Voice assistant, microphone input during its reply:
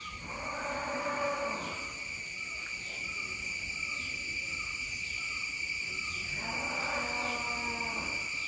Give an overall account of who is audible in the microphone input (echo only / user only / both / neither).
neither